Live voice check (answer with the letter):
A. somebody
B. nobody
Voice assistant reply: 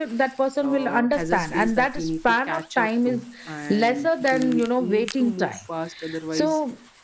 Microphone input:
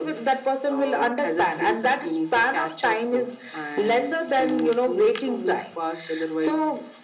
B